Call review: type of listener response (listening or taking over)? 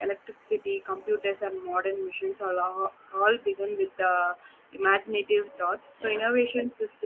listening